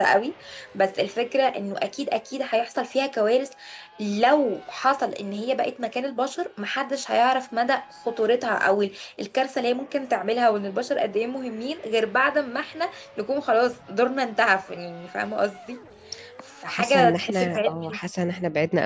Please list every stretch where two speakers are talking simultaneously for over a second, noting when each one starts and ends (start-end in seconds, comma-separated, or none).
16.7-18.0